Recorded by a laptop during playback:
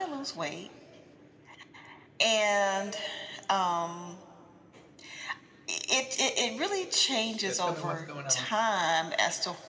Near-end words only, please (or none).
Yeah, tell me what's going on.